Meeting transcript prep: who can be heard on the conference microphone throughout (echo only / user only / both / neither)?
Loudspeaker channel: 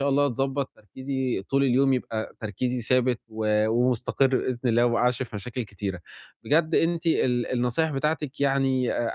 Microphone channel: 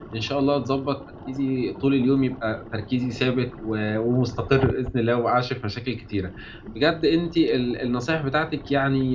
echo only